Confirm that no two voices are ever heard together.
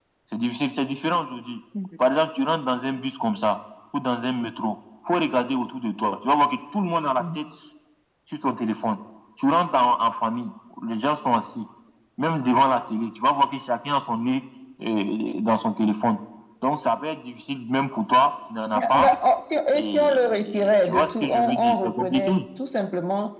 No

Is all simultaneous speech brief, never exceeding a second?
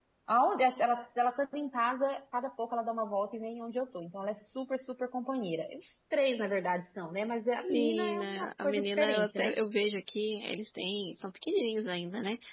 No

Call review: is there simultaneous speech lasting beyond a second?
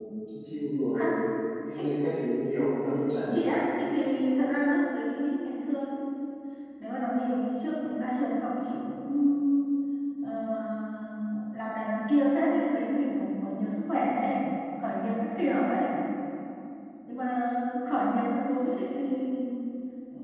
No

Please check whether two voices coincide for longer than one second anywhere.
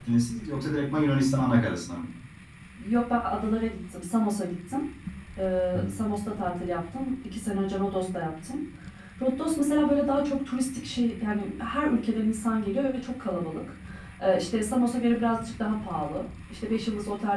No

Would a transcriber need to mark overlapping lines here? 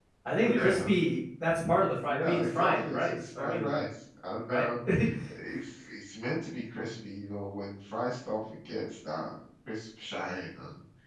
Yes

